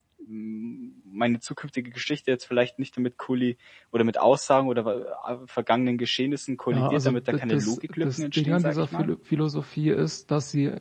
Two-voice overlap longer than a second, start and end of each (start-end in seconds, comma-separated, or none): 6.7-9.1